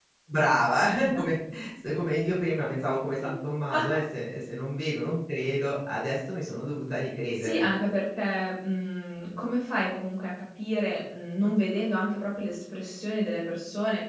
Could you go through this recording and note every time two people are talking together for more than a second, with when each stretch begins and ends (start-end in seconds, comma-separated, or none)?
none